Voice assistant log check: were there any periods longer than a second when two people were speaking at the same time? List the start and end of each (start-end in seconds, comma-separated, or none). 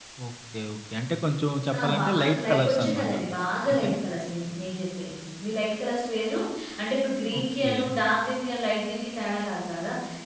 1.8-3.1